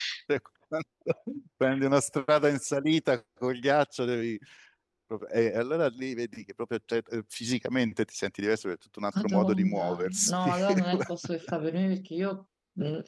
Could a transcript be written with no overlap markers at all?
No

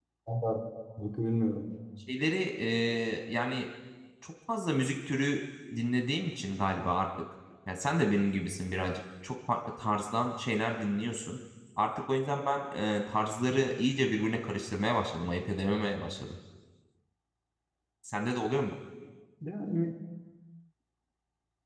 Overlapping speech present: No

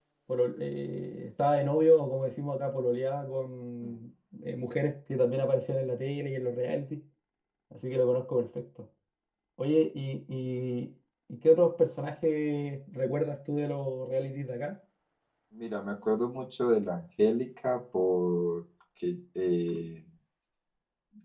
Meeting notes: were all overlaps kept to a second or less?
Yes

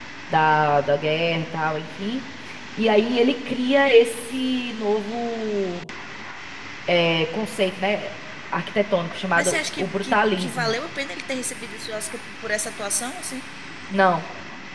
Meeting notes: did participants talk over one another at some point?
Yes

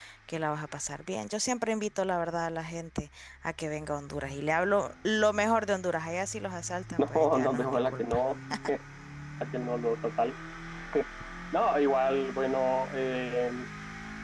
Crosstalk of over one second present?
Yes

